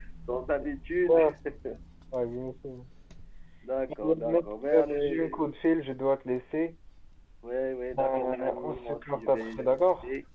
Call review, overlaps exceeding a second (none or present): present